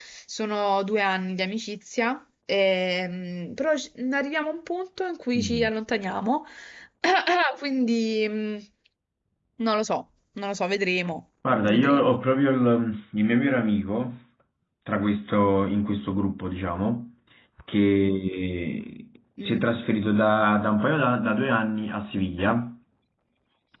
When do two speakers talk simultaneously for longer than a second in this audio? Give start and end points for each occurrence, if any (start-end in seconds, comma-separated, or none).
none